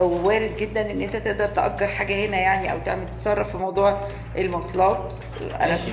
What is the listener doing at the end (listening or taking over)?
taking over